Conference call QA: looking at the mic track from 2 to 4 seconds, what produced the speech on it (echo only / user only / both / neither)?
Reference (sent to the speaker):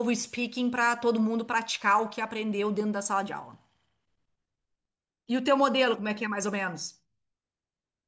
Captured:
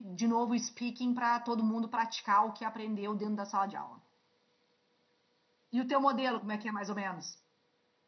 echo only